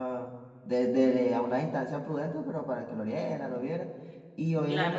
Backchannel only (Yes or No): Yes